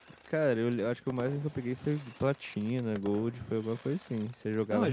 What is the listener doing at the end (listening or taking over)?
taking over